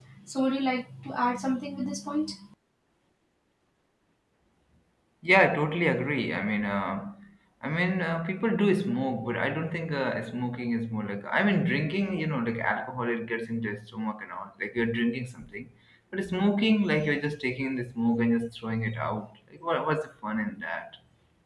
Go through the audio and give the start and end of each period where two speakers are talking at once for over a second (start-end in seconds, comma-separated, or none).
none